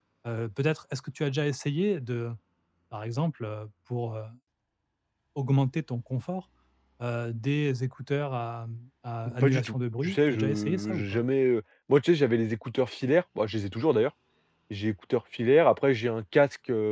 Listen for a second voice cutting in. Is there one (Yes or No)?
Yes